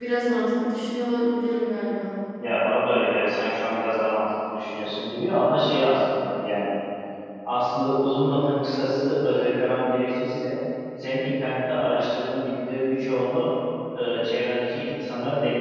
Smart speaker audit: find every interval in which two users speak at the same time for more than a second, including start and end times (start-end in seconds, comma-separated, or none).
none